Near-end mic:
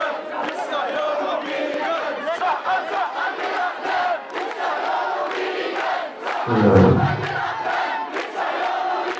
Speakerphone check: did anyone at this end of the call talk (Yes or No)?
Yes